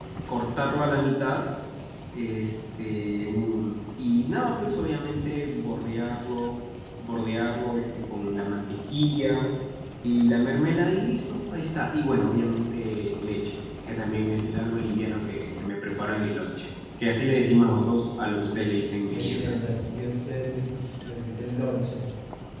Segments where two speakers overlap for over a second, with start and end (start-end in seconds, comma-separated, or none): none